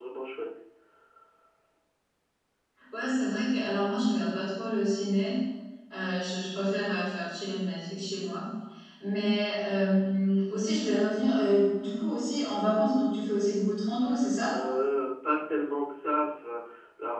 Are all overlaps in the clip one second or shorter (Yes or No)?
Yes